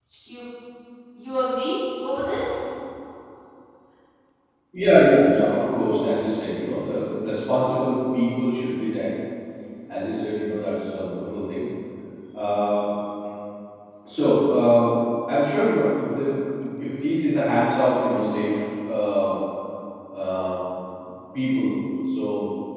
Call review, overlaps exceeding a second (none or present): none